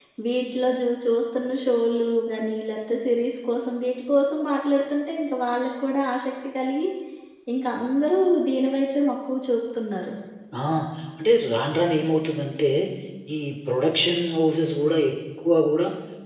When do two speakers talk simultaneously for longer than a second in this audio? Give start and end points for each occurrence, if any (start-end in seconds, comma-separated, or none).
none